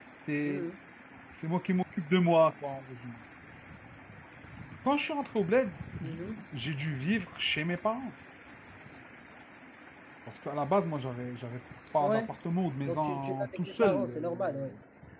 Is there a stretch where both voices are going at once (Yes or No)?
Yes